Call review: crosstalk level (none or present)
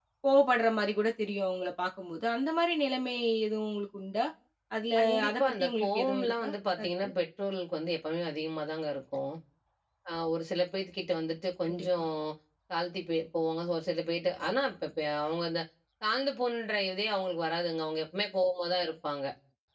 present